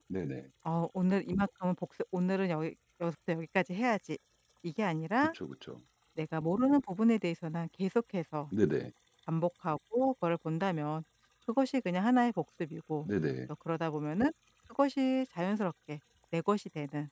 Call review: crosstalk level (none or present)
none